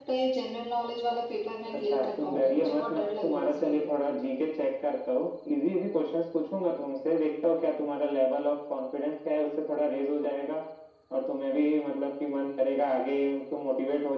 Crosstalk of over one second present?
Yes, from 1.6 s

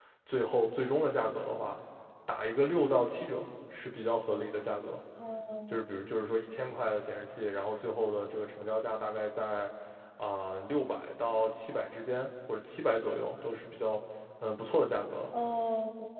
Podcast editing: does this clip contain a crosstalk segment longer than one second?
No

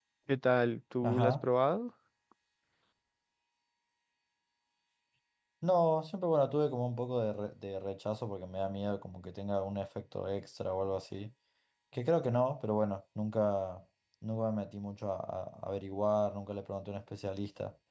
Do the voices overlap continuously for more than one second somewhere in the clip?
No

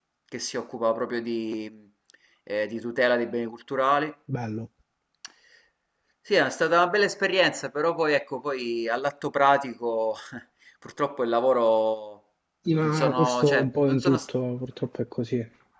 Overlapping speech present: Yes, from 12.8 s

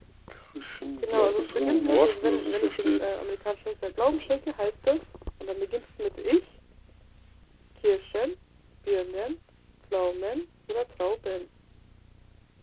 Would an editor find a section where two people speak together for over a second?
Yes, from 1.0 s

